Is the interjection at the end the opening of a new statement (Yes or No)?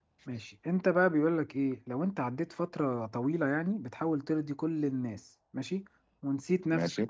No